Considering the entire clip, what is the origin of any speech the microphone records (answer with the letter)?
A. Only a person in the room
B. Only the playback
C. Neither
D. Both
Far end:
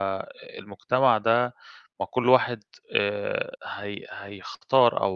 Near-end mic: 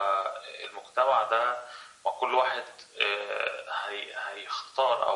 B